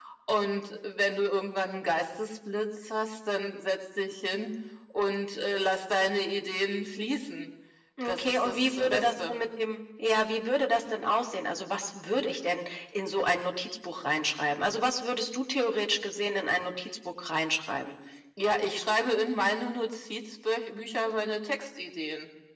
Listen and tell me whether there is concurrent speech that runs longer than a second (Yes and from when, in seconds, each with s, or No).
Yes, from 8.1 s